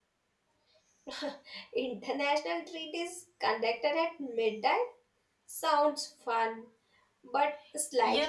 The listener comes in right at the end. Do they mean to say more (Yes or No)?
Yes